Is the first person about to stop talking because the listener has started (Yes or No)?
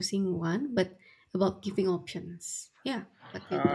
Yes